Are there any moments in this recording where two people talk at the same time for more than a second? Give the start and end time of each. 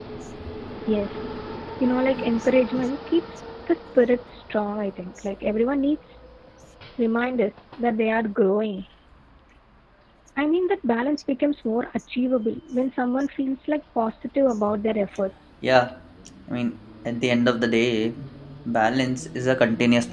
none

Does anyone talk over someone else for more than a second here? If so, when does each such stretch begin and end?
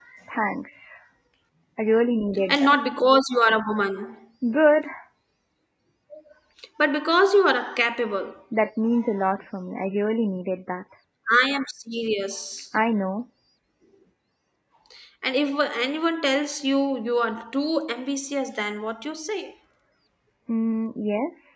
none

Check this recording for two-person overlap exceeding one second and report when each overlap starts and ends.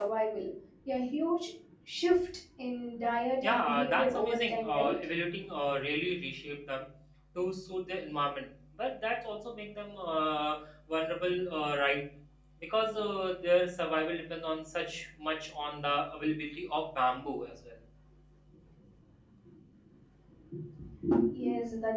3.4-4.9

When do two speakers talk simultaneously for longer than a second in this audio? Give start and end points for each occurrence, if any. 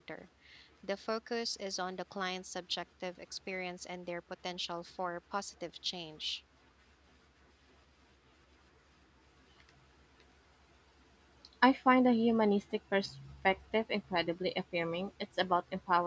none

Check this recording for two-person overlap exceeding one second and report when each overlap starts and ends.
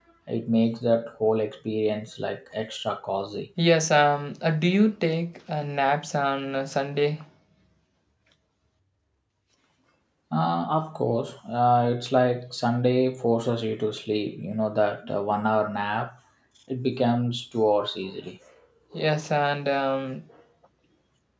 none

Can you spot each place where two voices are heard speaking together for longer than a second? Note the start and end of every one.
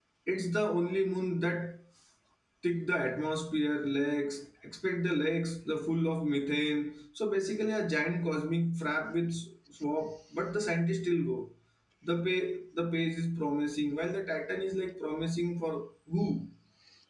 none

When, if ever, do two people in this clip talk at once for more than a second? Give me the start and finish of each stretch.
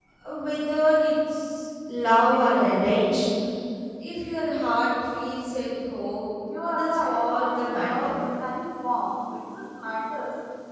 6.6-8.1

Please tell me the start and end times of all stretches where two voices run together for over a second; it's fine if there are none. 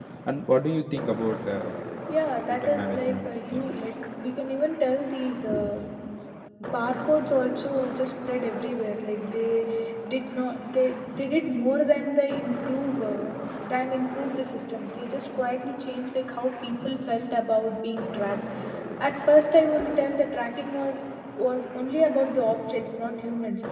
2.5-3.7

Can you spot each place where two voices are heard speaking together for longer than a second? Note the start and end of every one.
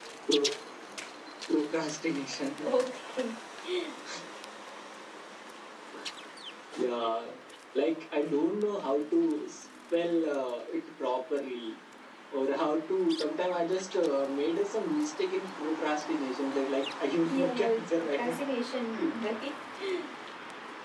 17.2-18.4

